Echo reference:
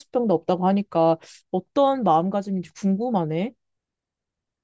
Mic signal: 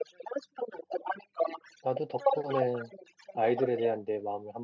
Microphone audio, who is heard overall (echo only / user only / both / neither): both